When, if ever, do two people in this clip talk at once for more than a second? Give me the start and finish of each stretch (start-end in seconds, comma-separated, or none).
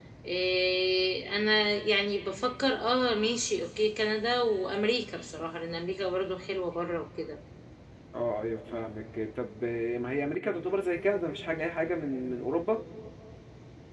none